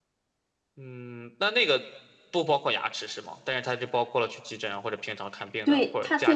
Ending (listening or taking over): taking over